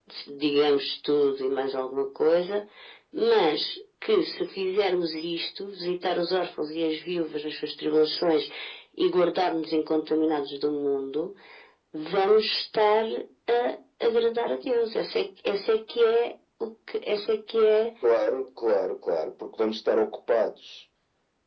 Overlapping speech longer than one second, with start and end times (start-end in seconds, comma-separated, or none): none